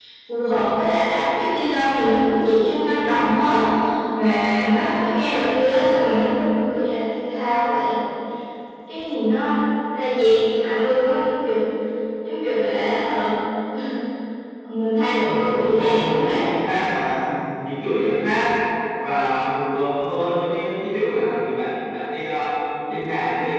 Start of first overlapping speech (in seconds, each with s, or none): 15.2 s